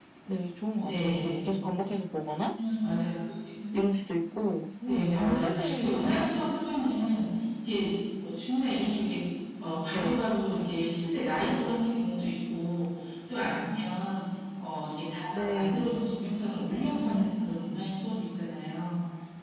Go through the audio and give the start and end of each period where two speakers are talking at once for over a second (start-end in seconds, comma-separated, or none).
4.9-6.5